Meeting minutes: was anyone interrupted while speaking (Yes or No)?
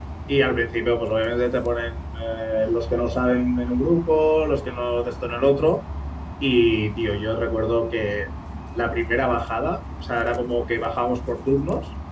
No